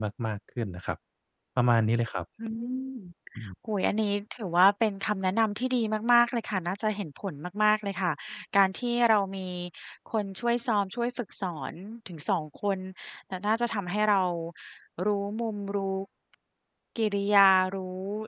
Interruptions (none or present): none